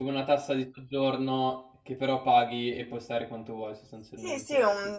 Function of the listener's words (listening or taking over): taking over